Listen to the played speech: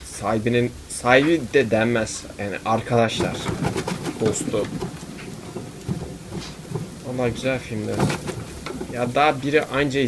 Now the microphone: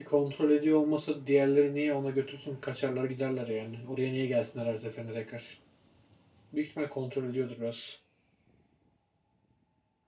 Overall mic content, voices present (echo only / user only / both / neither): user only